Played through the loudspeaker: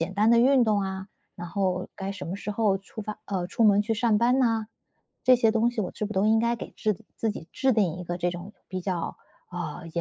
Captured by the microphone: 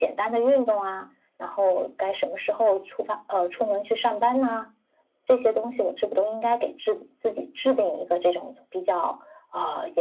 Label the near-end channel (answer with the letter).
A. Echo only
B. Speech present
A